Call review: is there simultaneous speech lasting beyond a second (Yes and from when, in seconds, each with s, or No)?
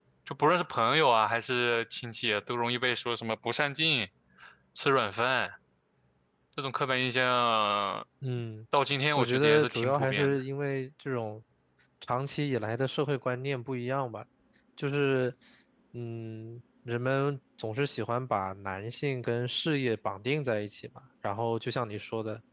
Yes, from 9.2 s